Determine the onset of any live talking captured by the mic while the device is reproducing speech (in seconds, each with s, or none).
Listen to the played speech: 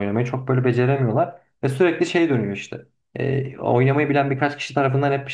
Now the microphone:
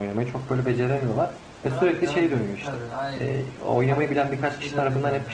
1.6 s